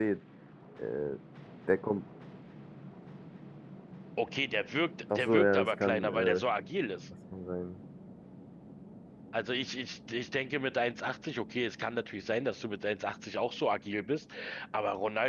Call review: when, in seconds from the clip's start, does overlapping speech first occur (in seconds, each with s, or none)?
5.1 s